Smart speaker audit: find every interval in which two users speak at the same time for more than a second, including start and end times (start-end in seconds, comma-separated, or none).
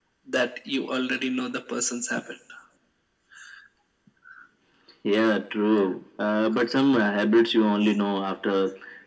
none